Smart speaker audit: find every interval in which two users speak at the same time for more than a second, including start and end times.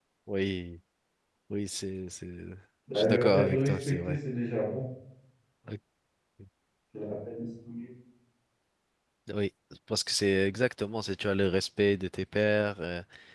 3.0-4.2

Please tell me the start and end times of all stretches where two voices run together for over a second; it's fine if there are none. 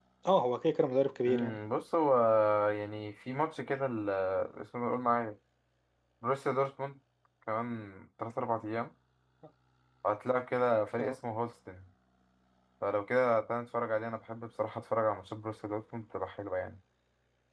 none

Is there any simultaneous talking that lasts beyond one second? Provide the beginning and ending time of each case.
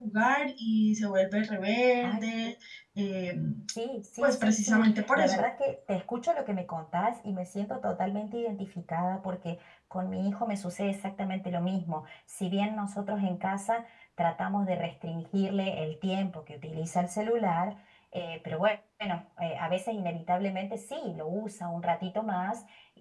4.2-5.5

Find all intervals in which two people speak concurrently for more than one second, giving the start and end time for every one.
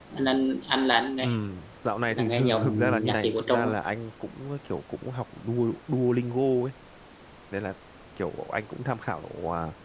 2.1-3.7

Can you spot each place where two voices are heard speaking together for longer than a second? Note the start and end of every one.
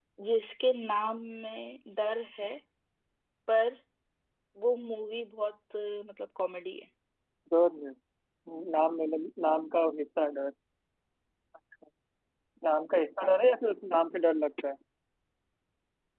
none

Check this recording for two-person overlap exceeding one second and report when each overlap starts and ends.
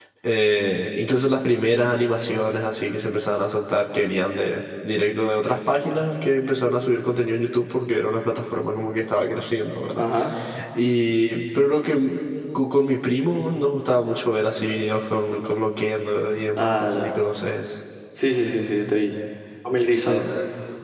none

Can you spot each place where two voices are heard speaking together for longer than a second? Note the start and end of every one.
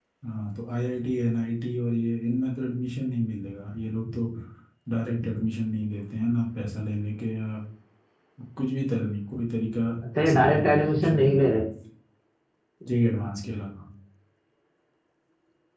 10.2-11.6

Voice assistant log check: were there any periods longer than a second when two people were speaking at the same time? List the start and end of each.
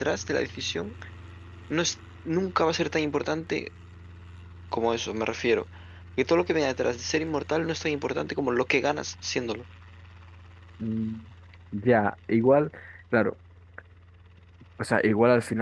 none

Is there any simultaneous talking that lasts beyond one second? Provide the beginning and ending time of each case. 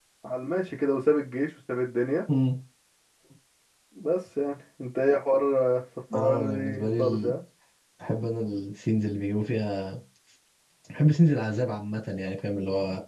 6.1-7.4

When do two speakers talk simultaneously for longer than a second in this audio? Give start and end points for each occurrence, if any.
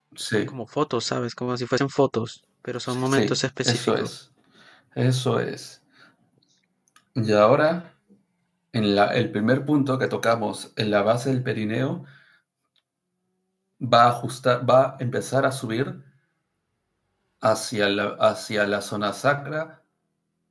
2.9-4.1

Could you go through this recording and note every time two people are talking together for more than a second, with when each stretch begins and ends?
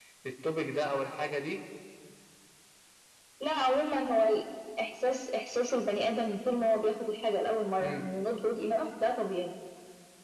none

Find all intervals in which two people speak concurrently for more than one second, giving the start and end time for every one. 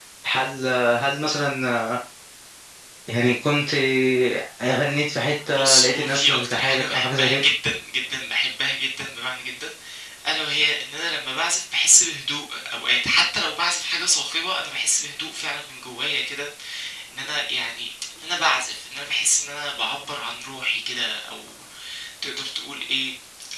5.6-7.4

